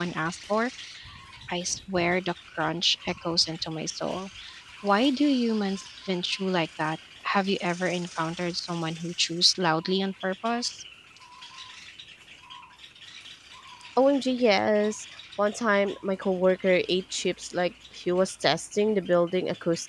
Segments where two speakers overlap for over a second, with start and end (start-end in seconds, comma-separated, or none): none